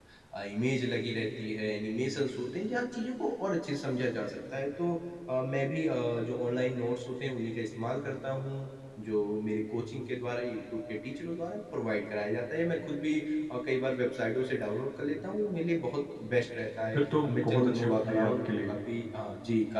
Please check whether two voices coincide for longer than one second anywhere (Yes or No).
Yes